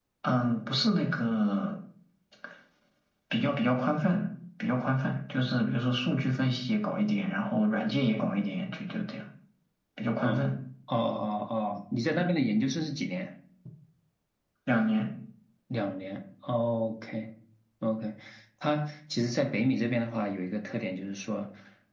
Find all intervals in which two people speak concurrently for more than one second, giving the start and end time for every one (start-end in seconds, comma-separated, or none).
none